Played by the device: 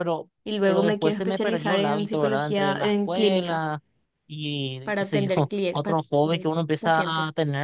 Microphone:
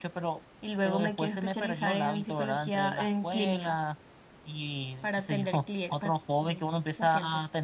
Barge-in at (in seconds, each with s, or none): none